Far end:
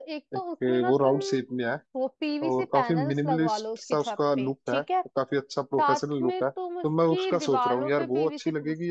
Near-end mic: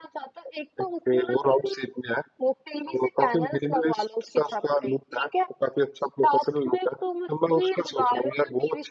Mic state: echo only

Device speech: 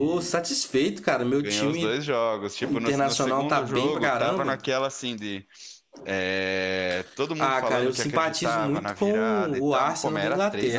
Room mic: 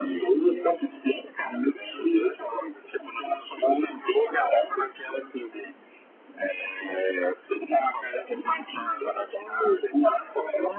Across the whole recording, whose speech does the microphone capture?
echo only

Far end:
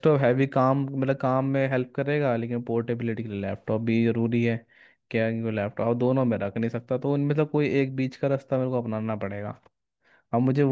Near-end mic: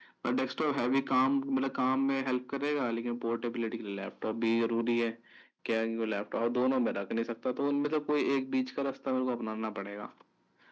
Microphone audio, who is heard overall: echo only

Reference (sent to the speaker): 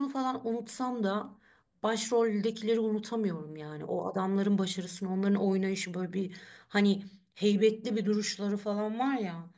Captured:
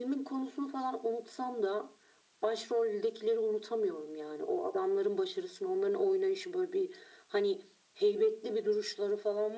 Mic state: echo only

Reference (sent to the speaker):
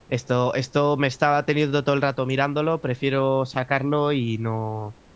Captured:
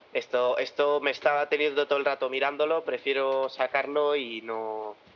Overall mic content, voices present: echo only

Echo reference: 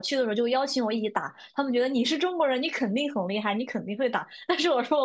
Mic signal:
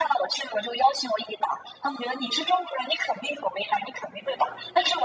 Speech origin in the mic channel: echo only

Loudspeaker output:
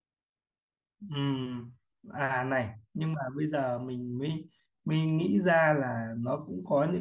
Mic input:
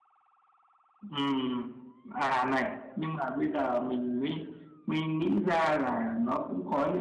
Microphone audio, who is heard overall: echo only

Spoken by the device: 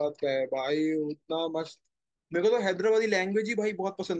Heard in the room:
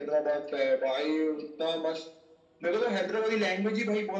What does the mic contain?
echo only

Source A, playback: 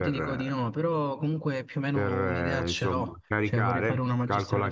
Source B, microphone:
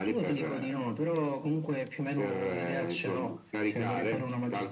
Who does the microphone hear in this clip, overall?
echo only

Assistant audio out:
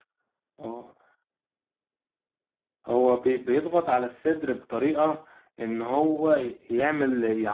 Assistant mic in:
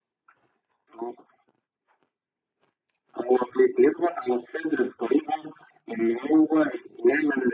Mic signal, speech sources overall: echo only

